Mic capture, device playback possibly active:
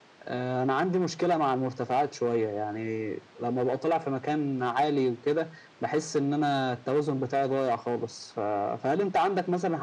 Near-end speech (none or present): none